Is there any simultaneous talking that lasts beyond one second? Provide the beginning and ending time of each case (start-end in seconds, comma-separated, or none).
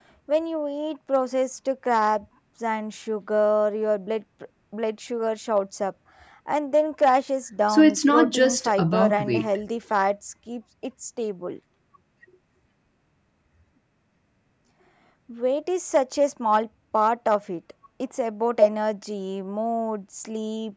7.7-9.6